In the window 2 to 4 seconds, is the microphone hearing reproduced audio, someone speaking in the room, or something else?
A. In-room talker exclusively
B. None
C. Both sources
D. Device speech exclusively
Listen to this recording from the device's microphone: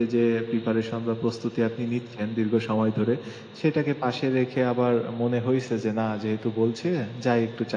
D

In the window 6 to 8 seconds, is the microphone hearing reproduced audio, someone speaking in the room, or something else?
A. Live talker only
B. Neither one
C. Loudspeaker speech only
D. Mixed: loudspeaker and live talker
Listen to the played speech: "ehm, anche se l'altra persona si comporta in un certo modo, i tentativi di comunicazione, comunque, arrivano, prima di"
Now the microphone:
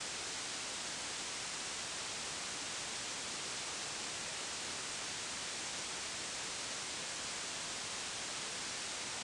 B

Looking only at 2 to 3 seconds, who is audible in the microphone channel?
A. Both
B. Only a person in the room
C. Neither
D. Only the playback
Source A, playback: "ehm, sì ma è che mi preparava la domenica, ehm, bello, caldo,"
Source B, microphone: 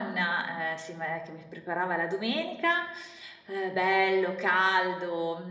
D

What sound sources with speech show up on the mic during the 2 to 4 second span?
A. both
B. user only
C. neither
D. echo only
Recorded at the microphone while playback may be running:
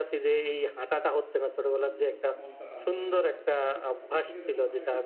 A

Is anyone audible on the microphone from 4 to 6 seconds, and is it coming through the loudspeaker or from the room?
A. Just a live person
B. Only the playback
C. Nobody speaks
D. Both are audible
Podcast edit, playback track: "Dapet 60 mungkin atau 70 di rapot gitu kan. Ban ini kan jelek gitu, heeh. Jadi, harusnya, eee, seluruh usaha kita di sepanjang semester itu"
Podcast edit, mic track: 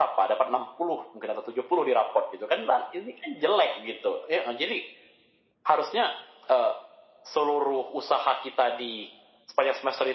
B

